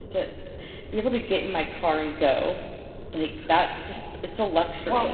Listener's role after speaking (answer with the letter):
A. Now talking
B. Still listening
A